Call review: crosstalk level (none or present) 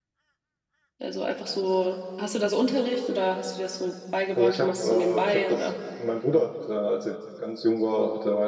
present